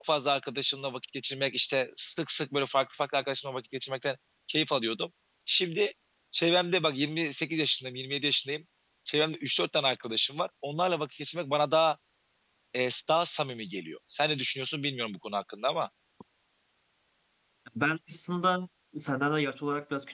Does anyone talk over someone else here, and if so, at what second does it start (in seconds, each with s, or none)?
none